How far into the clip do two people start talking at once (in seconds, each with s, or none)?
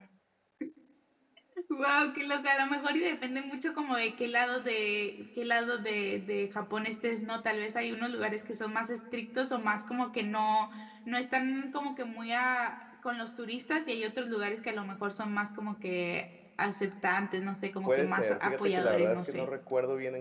17.9 s